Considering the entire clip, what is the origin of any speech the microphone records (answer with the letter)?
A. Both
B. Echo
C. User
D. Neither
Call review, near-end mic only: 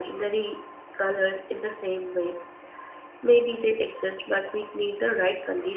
C